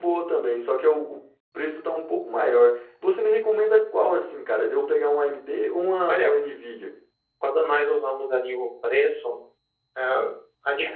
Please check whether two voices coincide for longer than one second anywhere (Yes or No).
No